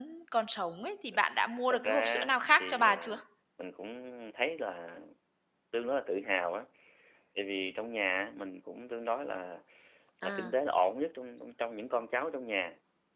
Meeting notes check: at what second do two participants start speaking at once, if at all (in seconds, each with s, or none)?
1.7 s